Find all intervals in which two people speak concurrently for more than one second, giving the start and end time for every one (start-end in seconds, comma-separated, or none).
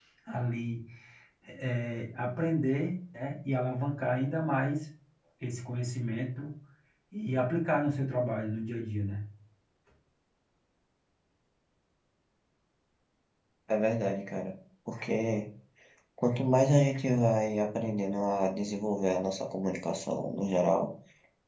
none